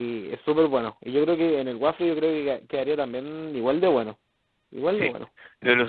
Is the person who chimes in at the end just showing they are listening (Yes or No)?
No